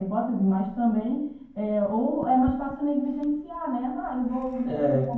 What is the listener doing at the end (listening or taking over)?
listening